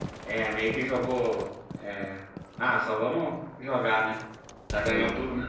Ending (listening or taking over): listening